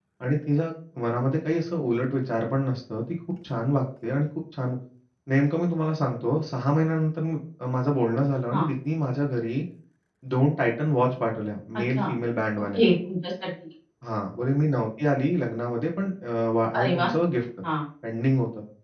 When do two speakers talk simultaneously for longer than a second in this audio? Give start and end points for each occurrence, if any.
none

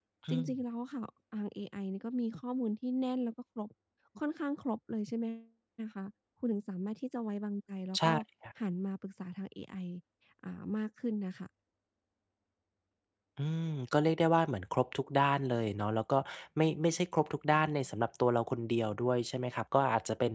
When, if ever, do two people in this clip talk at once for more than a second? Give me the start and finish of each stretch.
none

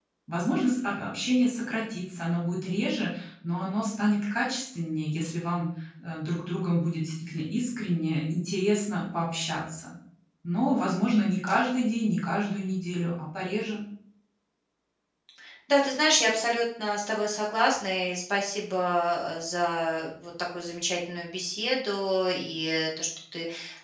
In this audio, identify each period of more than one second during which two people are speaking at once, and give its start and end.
none

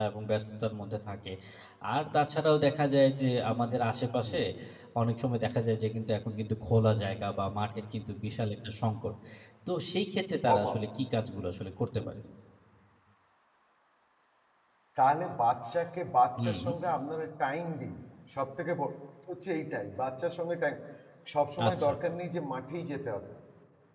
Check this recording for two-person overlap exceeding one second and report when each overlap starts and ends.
none

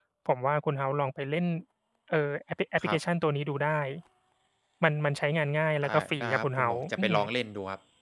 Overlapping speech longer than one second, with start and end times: 5.8-7.2

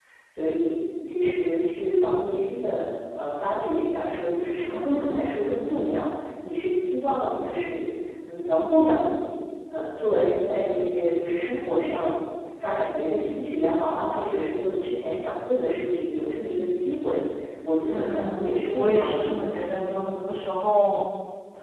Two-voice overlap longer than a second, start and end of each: 17.9-19.5

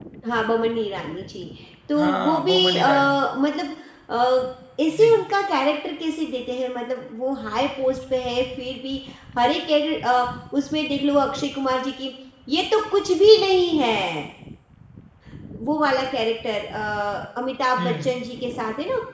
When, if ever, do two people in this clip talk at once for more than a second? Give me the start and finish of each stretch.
2.0-3.2

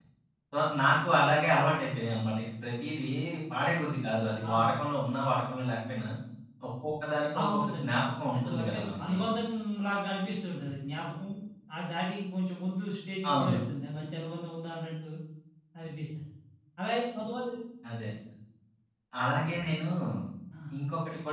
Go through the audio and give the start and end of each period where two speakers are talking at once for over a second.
7.4-9.2

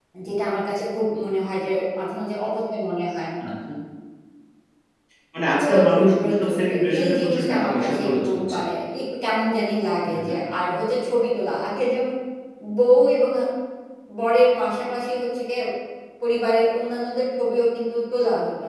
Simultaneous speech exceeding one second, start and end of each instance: 5.6-8.6

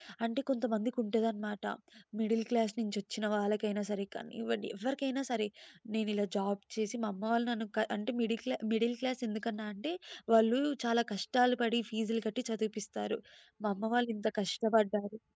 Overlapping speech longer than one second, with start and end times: none

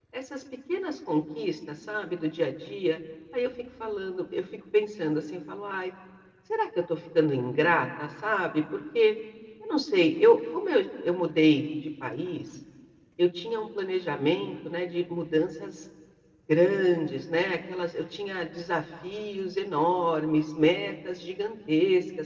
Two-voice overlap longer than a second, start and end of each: none

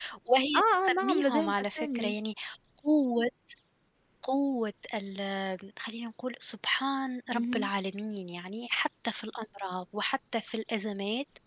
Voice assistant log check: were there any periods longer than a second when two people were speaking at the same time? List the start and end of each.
0.6-2.1

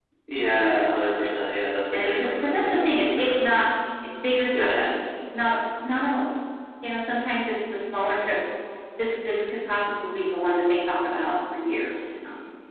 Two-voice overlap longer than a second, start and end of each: 1.9-3.3

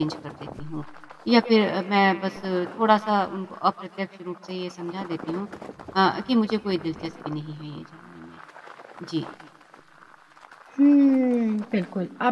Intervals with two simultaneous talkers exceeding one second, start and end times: none

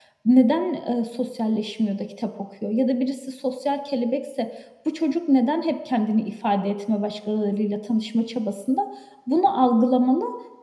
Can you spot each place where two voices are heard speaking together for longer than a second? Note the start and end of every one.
none

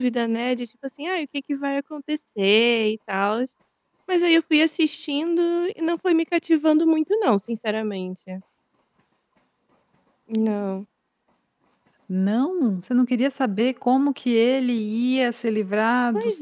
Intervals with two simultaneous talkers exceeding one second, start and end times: none

